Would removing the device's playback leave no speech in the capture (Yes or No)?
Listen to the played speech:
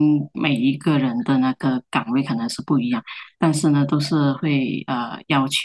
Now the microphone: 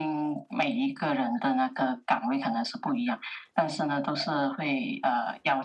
Yes